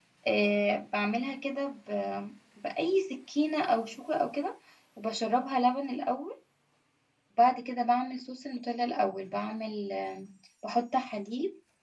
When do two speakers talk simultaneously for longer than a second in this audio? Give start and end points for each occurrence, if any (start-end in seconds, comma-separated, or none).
none